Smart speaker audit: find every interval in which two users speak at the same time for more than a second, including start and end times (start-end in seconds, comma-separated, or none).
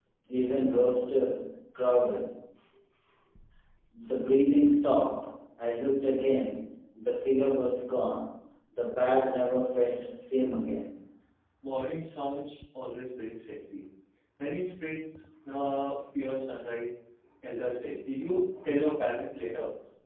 none